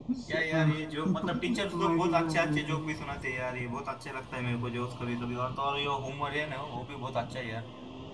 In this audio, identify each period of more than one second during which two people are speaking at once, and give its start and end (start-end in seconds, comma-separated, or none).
1.1-2.8